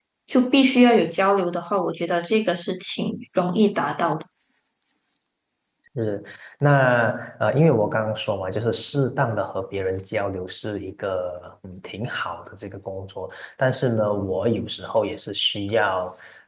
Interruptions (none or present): none